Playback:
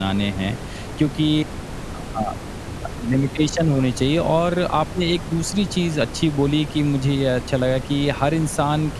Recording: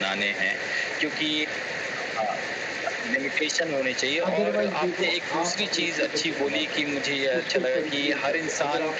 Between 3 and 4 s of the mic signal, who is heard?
echo only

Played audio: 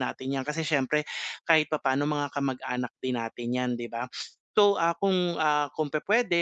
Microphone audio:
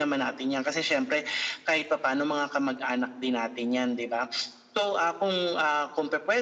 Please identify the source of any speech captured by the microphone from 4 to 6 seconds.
echo only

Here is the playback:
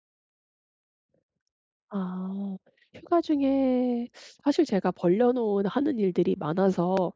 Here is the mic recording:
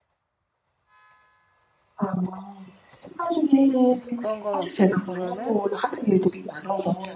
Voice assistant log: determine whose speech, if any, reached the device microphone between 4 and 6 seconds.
both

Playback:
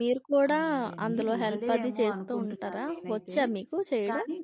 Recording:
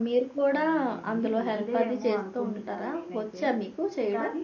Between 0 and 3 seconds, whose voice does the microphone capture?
echo only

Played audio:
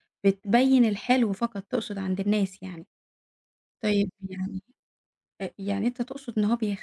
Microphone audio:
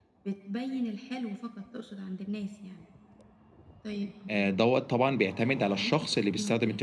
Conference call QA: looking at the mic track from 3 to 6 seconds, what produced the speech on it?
both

